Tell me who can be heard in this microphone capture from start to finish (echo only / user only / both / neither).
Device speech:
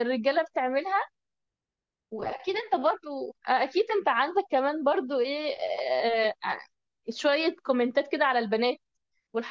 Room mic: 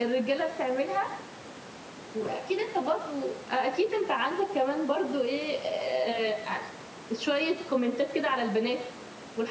echo only